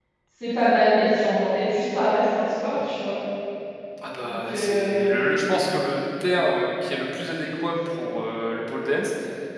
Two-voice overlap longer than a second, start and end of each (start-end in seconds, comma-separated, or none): 4.3-5.5